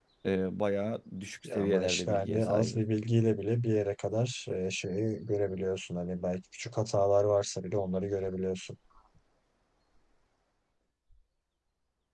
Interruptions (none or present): present